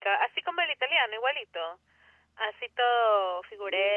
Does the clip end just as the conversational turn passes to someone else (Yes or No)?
Yes